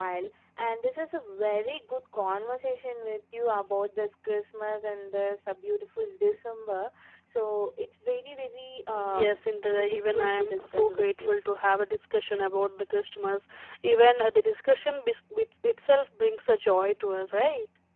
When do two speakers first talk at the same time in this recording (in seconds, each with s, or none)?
8.9 s